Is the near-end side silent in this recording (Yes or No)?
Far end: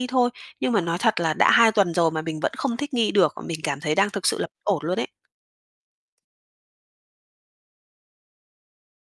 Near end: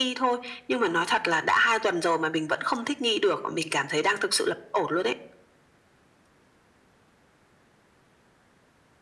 Yes